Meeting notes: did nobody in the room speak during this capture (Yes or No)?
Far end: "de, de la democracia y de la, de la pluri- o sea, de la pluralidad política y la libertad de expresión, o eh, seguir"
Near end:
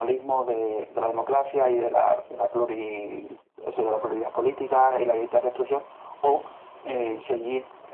Yes